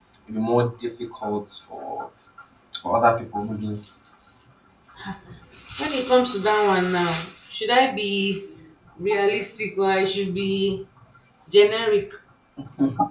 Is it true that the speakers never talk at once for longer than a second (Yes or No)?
Yes